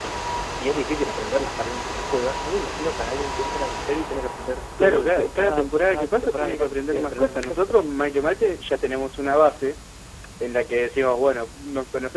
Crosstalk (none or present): present